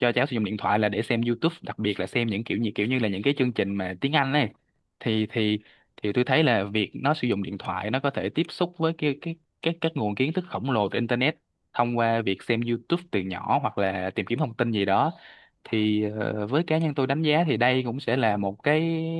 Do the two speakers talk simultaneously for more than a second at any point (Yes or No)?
No